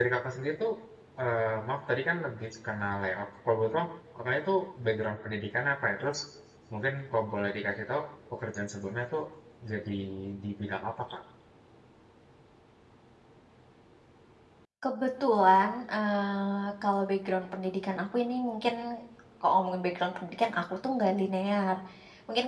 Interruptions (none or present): none